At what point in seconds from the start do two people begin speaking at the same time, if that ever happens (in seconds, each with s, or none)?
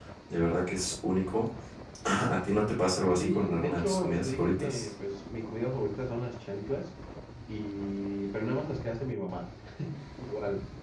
3.2 s